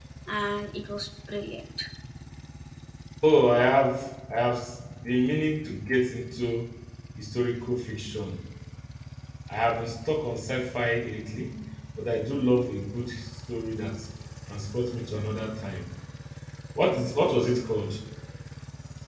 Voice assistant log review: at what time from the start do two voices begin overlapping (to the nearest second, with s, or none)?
none